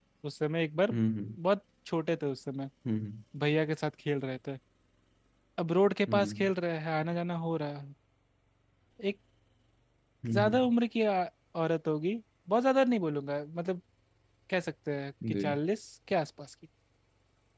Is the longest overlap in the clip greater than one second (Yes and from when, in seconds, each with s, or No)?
No